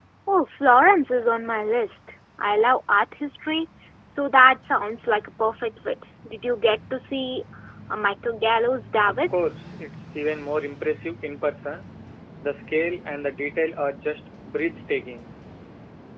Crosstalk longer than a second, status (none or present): none